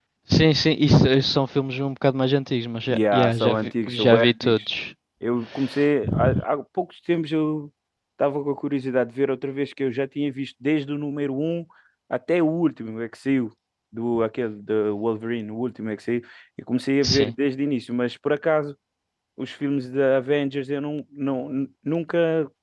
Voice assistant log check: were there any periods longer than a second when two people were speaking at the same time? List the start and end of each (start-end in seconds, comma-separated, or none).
2.9-4.7